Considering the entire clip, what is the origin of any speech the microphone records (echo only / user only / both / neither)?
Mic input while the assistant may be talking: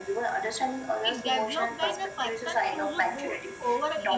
both